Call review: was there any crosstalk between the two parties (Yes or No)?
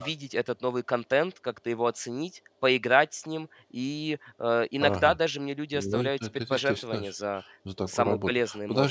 Yes